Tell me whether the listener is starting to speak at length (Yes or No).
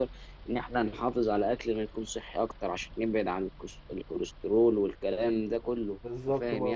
Yes